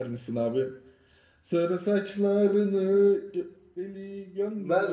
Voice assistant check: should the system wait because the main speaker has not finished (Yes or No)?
No